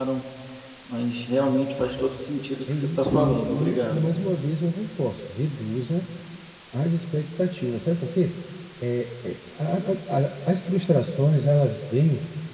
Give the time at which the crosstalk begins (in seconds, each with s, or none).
2.7 s